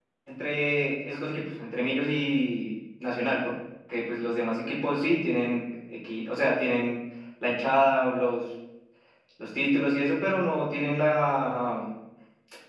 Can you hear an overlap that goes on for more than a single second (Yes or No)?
No